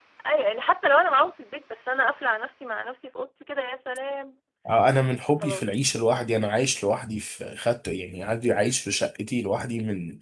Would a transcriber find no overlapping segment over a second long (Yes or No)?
Yes